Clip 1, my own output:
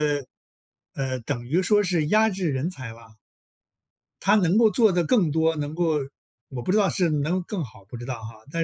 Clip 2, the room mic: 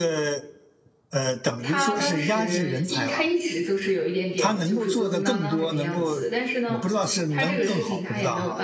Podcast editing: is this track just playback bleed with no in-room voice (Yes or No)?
No